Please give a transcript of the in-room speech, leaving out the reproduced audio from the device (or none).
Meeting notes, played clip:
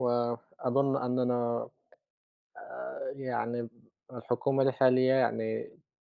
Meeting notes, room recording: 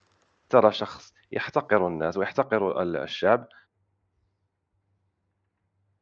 ترى شخص يحتقر الناس ويحتقر ال الشعب